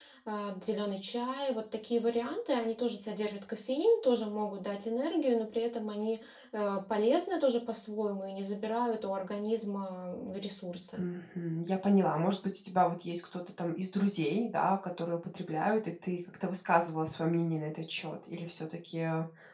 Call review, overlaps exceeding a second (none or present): none